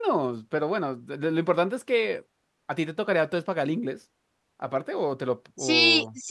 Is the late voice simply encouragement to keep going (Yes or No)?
No